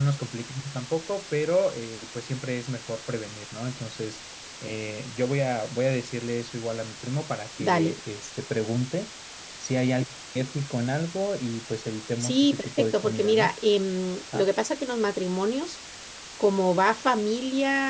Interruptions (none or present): present